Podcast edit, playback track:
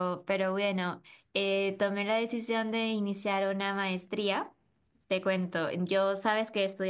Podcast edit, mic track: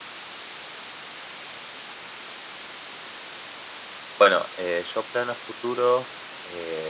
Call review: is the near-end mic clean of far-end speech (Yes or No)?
Yes